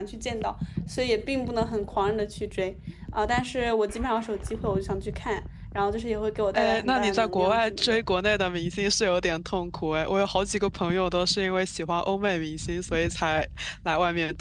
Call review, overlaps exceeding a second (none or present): present